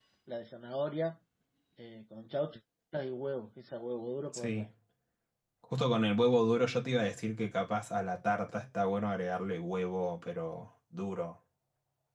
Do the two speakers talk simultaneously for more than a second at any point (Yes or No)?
No